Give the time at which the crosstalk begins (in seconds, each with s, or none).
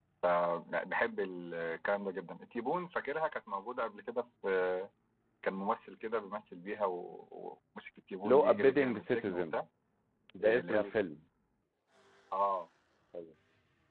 8.2 s